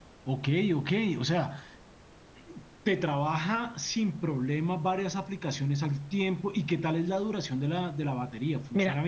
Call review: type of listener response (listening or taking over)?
taking over